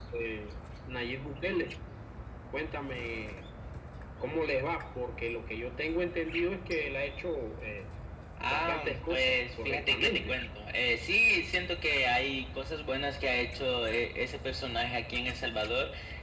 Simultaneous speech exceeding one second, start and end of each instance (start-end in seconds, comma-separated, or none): 8.5-10.3